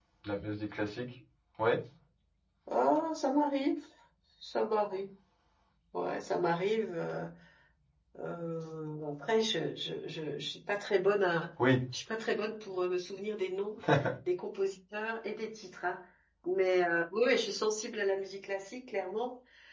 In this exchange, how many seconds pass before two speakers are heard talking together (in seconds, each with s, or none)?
none